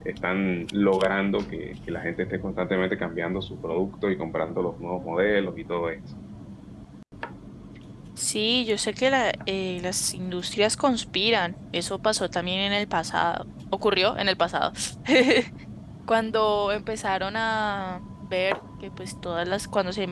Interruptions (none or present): none